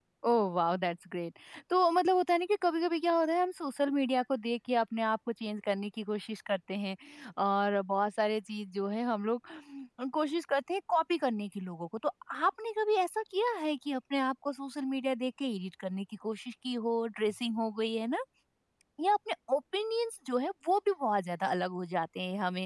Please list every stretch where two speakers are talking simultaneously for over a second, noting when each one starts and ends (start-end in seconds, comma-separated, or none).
none